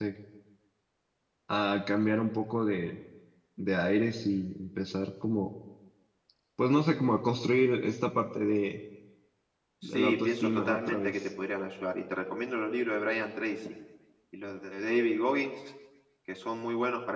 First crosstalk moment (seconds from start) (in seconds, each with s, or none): 9.8 s